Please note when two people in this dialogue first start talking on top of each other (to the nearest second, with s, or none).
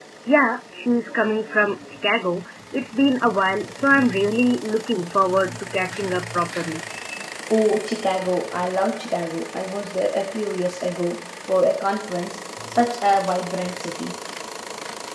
none